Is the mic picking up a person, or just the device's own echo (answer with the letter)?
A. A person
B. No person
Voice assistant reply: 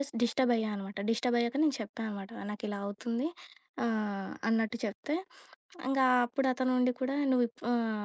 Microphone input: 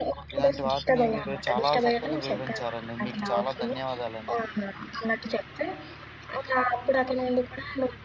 A